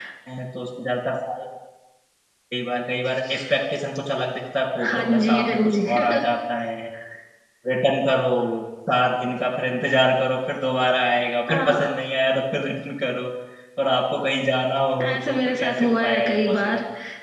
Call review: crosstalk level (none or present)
present